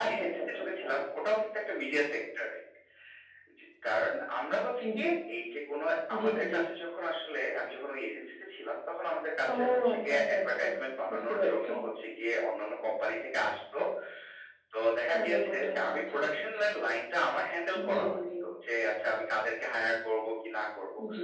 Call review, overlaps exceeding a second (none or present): present